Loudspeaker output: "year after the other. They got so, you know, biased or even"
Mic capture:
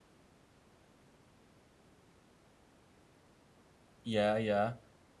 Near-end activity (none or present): present